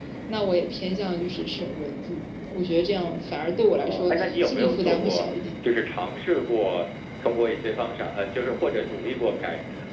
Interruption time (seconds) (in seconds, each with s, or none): 3.8 s